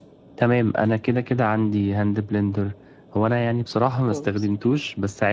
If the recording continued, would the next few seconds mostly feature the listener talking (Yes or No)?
No